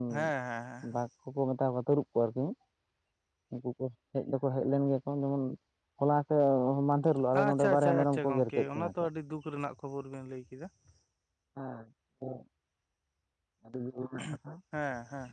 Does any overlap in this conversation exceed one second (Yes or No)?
Yes